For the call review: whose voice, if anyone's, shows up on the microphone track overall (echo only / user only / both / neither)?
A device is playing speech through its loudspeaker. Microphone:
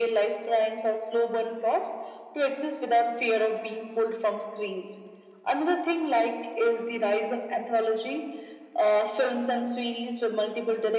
echo only